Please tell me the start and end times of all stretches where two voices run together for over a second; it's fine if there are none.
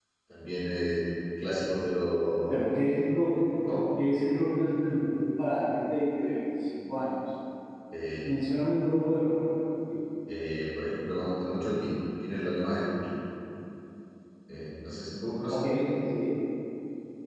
none

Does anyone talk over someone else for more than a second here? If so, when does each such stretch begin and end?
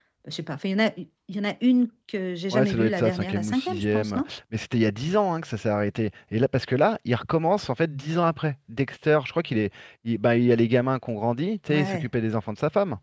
2.5-4.2

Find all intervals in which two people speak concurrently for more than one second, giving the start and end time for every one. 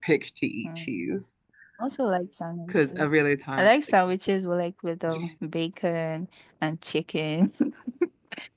none

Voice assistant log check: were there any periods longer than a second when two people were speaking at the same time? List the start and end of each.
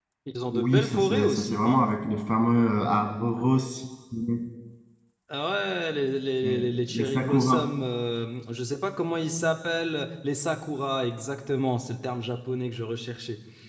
0.5-1.8, 6.4-7.6

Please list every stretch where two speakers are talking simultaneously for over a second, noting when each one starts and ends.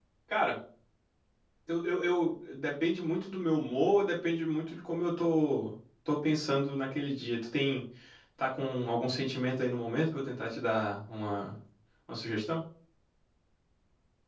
none

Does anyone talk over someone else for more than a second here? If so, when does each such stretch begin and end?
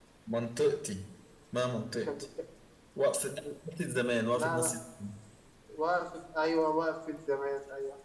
none

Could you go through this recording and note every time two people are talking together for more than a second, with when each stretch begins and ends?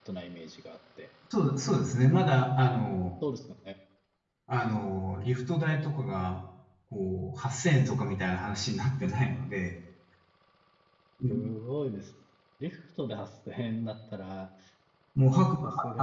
none

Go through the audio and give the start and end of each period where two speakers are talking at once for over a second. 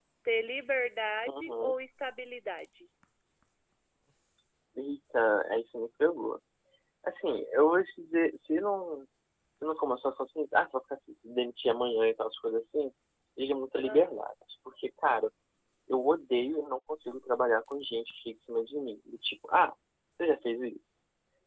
none

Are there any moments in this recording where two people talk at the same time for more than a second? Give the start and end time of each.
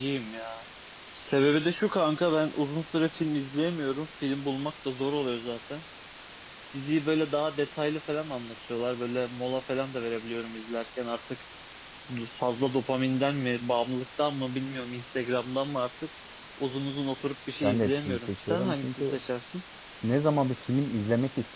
17.6-19.2

